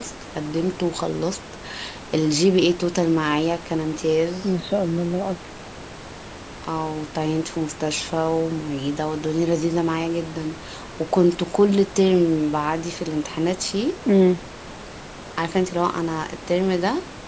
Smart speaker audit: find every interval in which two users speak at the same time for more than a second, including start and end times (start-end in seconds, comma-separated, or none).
none